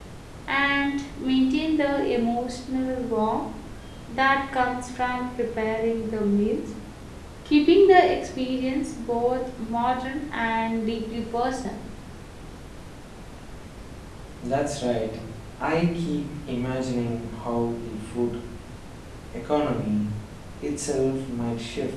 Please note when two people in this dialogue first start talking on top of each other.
none

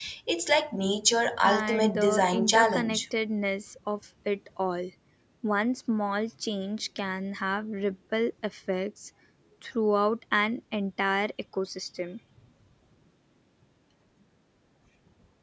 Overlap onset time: 1 s

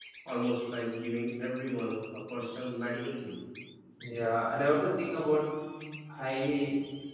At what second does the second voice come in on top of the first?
none

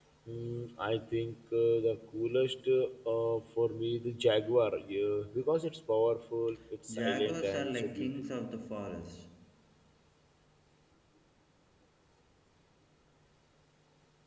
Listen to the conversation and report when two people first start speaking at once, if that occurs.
7 s

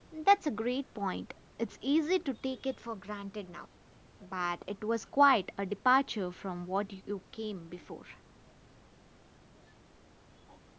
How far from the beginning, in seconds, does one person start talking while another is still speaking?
none

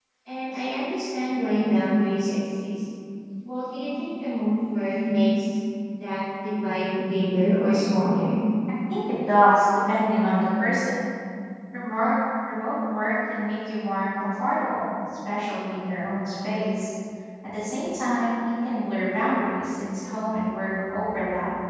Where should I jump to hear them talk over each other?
none

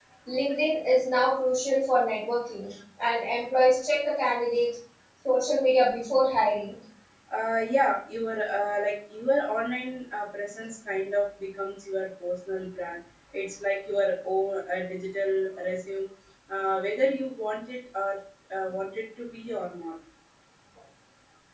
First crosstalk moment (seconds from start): none

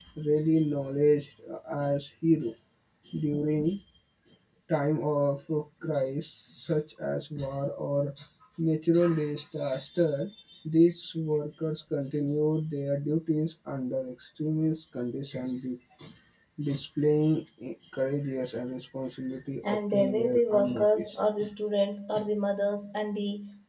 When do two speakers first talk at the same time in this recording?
20 s

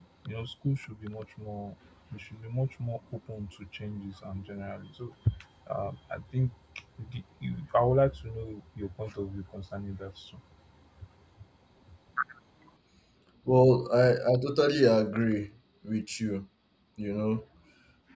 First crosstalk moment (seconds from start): none

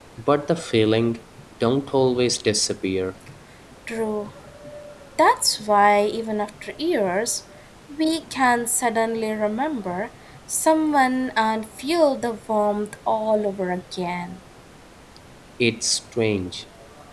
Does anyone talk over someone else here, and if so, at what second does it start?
none

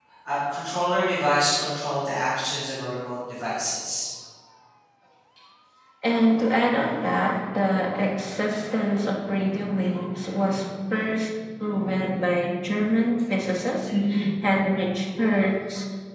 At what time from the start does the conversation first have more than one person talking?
none

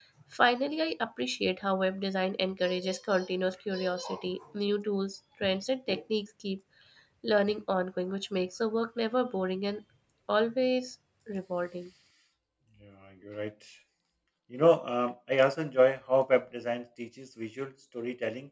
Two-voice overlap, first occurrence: none

